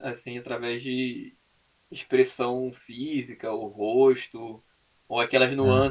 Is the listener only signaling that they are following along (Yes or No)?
Yes